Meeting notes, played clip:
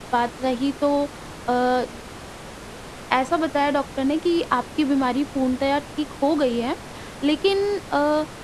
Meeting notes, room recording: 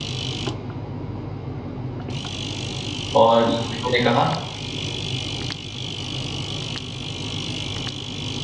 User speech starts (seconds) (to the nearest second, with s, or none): 3 s